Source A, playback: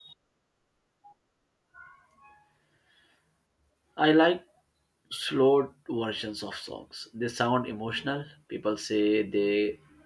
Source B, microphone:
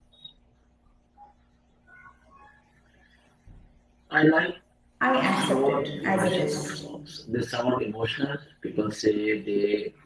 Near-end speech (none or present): present